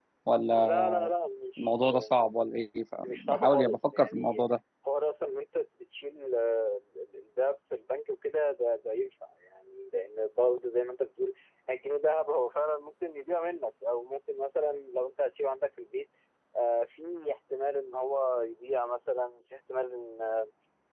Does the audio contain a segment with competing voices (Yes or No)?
Yes